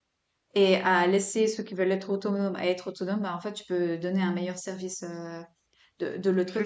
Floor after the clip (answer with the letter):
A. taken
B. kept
A